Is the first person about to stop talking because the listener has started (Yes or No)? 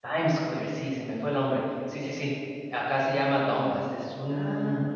No